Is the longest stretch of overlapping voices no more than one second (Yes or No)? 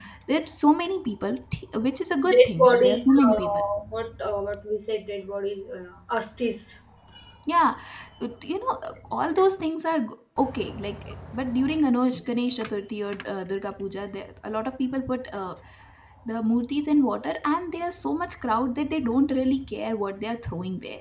No